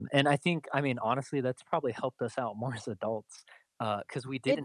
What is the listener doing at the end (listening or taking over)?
listening